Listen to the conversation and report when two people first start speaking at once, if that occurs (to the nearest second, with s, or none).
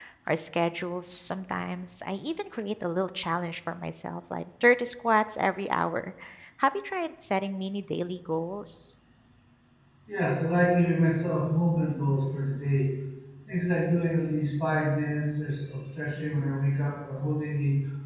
none